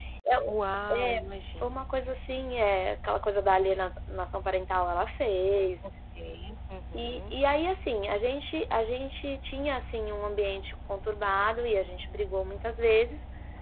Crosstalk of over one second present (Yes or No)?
No